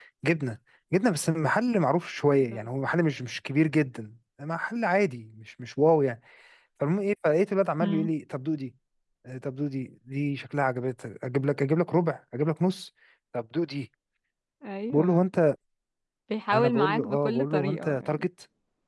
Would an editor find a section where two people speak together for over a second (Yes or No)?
Yes